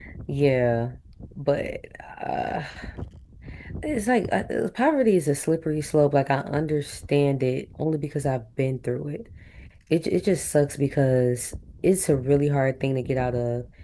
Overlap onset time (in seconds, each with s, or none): none